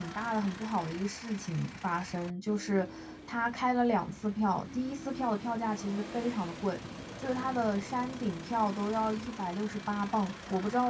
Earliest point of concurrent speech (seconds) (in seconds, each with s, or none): none